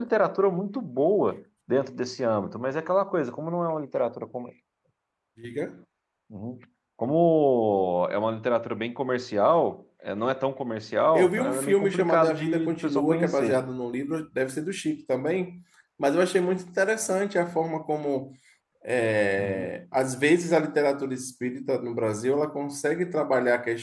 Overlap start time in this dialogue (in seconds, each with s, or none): 11.1 s